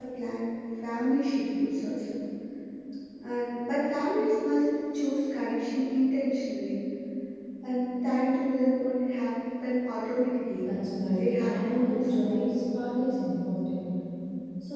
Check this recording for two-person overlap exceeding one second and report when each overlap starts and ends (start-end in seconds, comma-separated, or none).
11.1-12.4